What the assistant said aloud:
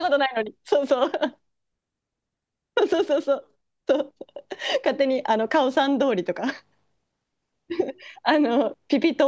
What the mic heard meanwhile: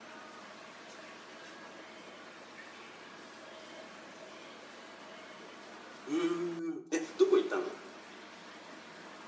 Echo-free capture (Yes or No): Yes